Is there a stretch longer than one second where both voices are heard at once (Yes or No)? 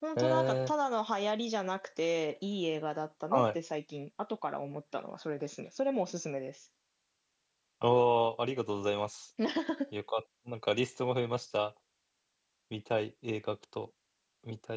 No